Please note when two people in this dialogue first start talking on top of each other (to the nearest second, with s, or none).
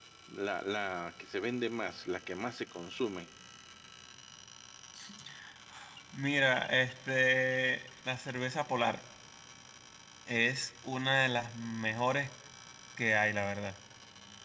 none